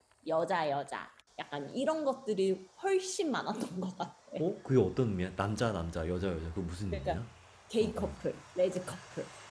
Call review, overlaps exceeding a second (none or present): none